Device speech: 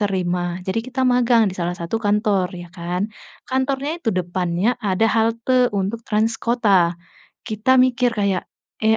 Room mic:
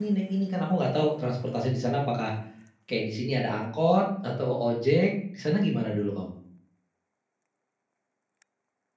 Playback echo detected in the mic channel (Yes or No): No